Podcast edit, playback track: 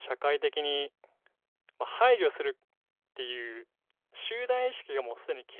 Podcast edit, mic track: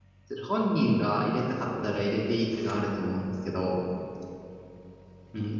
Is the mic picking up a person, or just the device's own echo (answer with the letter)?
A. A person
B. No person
A